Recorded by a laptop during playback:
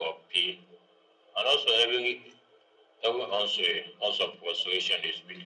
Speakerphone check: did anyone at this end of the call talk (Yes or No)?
No